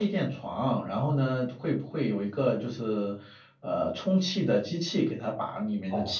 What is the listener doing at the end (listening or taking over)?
taking over